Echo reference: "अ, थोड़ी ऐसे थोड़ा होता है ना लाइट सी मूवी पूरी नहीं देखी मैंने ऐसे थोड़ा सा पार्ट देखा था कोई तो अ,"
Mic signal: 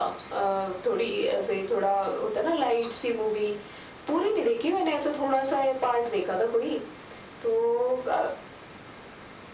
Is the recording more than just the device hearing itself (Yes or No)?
No